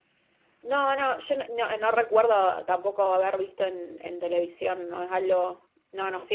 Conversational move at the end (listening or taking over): listening